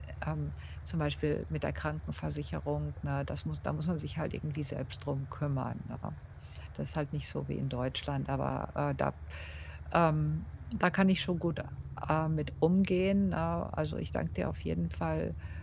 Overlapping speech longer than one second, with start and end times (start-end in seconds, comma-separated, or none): none